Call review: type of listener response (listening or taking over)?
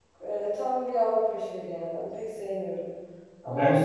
listening